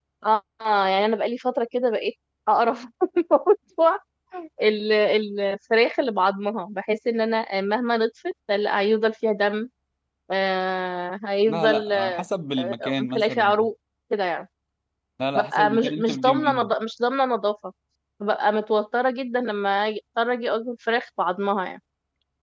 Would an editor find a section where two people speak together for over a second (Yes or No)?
Yes